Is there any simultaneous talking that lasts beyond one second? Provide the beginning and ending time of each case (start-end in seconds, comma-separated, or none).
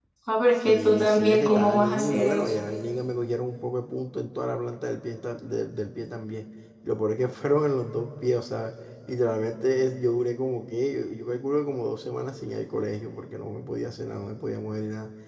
0.7-2.7